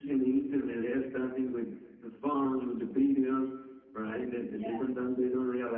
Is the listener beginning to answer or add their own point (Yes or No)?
No